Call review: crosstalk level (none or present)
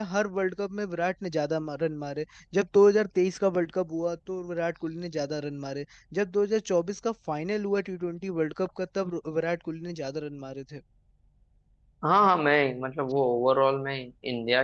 none